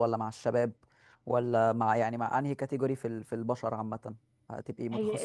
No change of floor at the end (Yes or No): No